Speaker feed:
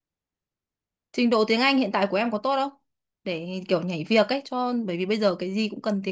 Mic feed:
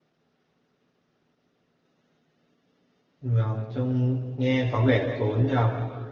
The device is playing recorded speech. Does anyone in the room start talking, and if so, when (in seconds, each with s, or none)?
3.2 s